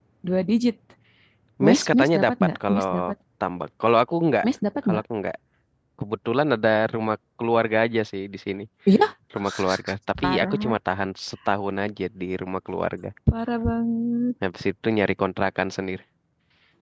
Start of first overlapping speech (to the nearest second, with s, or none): 2 s